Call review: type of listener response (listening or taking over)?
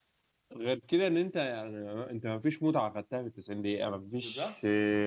listening